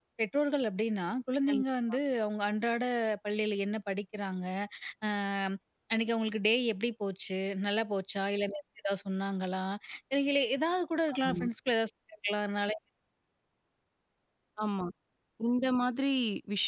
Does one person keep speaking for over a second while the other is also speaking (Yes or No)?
No